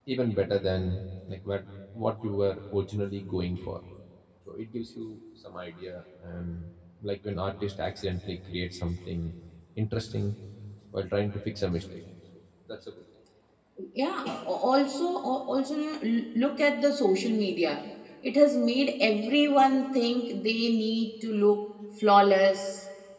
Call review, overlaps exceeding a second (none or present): none